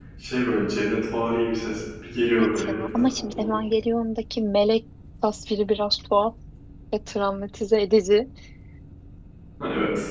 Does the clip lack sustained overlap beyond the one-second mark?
No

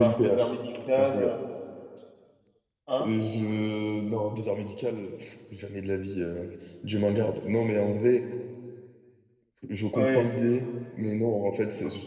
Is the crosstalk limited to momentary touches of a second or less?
Yes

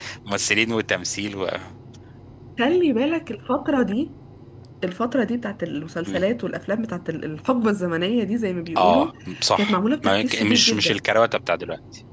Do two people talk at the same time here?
Yes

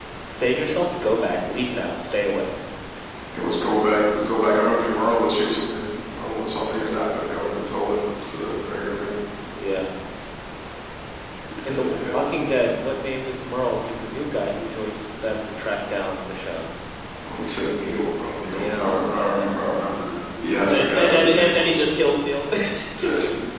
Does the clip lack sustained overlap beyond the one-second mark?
No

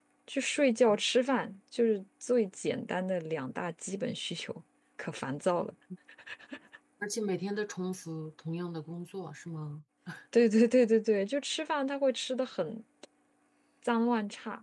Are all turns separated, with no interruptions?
Yes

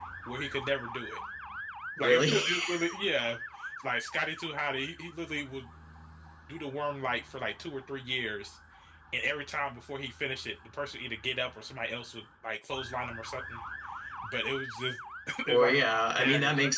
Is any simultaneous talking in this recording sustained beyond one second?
Yes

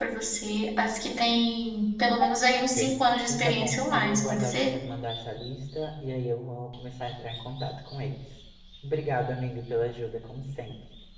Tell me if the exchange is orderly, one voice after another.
No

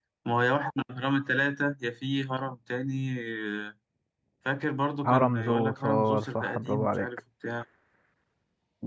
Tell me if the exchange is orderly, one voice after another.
No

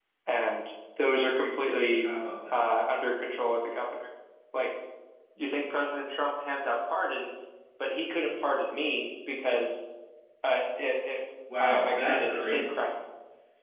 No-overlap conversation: No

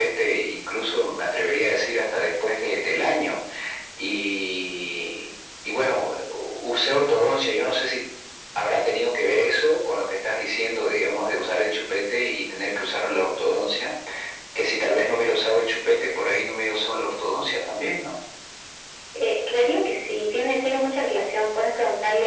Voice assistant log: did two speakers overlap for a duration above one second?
No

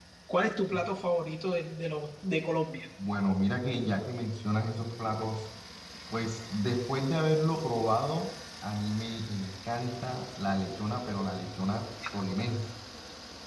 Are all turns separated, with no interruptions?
Yes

